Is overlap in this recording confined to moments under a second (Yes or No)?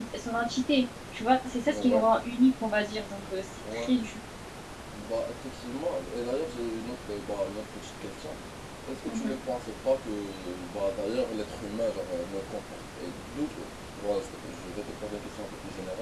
Yes